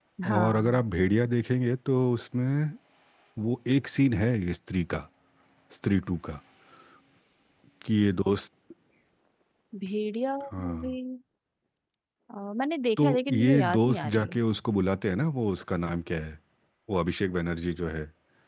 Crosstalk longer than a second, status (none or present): present